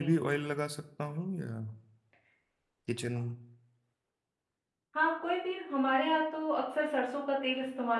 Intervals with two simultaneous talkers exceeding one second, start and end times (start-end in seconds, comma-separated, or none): none